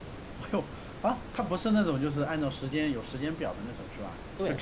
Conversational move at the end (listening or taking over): taking over